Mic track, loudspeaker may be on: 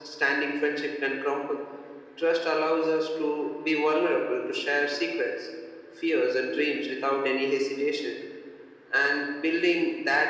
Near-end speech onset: none

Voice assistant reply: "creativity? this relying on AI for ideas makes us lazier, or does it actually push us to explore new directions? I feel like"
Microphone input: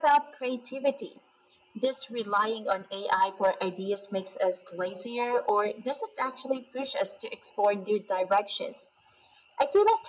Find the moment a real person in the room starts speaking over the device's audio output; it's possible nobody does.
none

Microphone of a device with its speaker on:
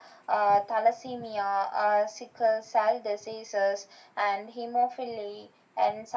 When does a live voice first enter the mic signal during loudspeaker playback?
none

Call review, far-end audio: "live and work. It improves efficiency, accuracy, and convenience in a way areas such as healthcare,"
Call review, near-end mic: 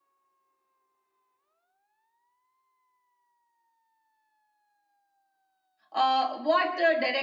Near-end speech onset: 5.9 s

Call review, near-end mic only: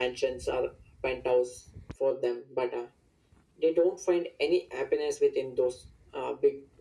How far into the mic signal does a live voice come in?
none

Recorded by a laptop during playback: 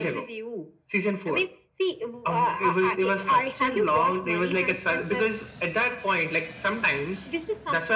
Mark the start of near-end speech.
none

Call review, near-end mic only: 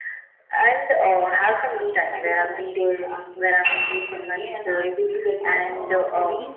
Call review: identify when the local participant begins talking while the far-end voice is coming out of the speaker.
1.8 s

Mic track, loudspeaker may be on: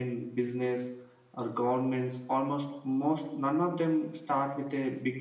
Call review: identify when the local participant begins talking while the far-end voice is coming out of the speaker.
none

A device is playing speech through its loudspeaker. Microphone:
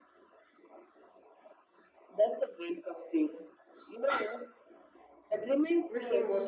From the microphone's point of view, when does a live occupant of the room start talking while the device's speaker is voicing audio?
5.2 s

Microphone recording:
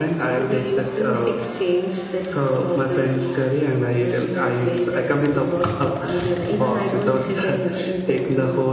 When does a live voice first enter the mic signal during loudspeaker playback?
none

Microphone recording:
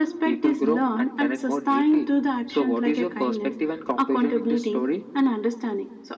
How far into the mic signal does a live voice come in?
none

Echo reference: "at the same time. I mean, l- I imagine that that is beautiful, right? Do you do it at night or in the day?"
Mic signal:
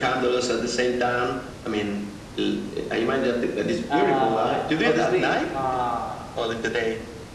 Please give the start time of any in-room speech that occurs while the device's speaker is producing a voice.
3.9 s

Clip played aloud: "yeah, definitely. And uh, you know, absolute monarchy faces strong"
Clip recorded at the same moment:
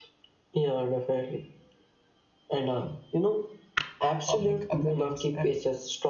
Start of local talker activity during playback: 4.2 s

